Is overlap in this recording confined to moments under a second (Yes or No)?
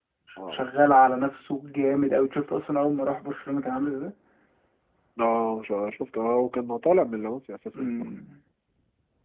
Yes